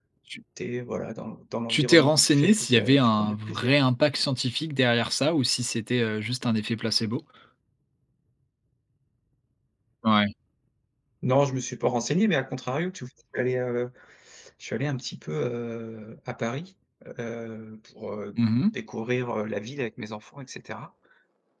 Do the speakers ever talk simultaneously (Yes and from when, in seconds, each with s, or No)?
Yes, from 1.7 s